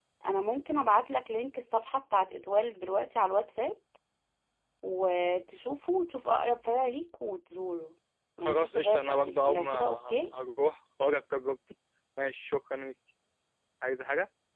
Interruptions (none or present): present